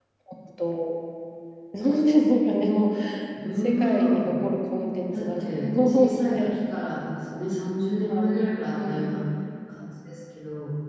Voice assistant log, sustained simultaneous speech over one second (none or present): present